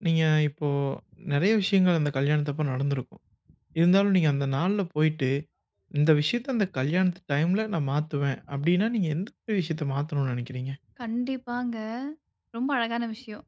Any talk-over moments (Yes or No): No